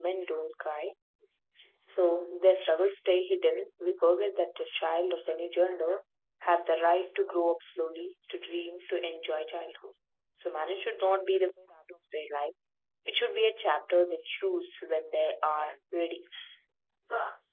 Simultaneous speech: No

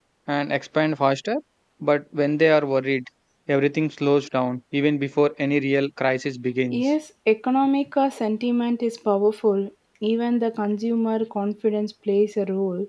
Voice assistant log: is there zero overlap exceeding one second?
Yes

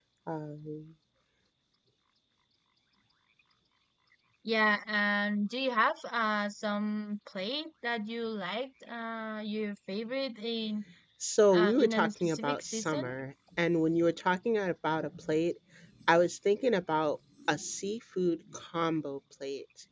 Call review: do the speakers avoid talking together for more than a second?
No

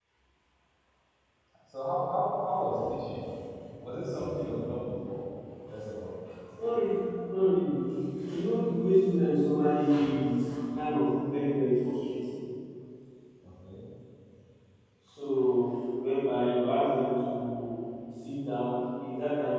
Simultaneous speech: No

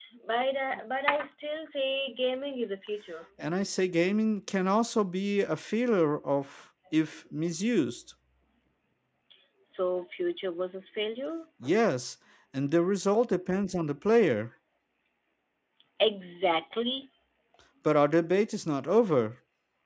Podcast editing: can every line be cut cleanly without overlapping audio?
Yes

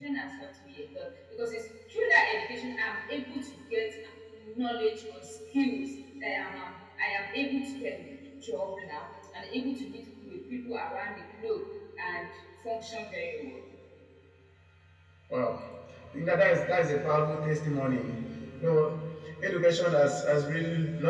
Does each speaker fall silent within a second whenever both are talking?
Yes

